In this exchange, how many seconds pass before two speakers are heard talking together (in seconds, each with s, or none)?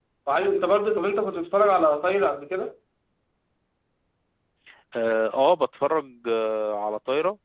none